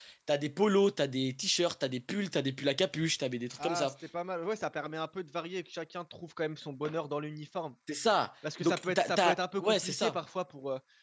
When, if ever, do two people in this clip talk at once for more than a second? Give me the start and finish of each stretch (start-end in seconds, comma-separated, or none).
8.6-10.2